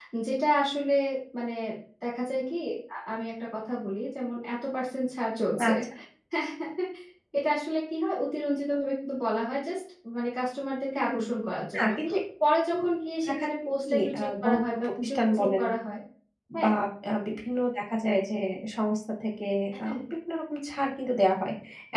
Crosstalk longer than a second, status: present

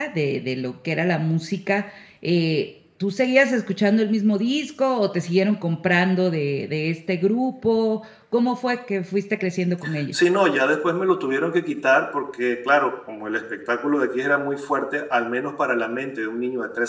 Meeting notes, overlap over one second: none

